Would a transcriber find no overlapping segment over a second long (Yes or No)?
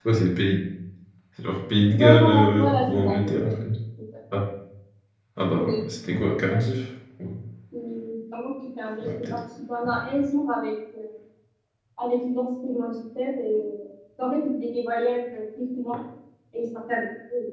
No